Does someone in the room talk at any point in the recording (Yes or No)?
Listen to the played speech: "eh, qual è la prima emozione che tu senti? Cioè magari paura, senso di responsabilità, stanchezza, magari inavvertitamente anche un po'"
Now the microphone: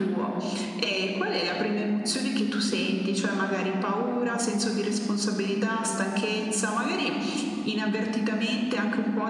No